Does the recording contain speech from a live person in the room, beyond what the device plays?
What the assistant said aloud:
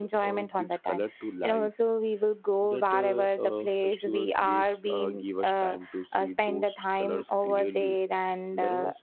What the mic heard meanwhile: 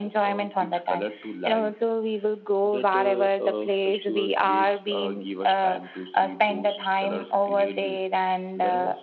No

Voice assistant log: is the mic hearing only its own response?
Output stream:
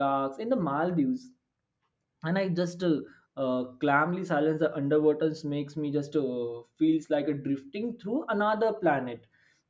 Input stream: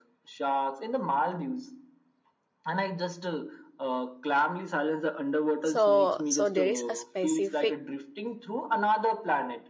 No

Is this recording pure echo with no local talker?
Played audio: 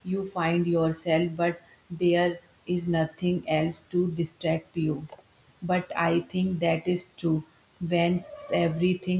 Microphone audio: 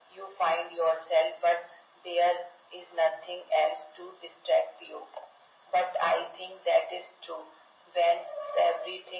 Yes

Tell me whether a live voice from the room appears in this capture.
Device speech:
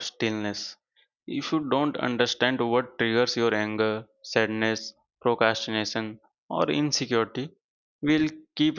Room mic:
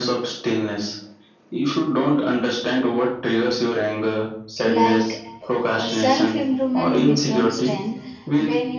Yes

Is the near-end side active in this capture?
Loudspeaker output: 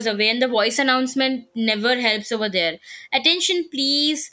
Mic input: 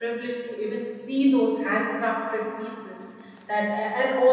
Yes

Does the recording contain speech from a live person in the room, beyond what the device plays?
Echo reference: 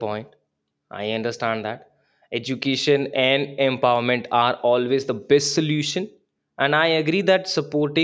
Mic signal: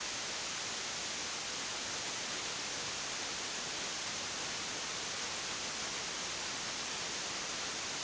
No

